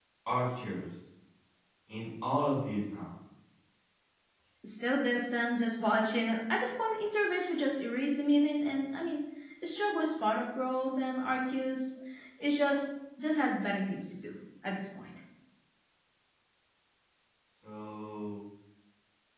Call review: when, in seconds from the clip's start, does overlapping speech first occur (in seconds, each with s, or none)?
none